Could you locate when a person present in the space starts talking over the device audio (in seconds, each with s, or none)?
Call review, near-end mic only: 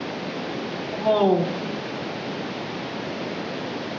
0.9 s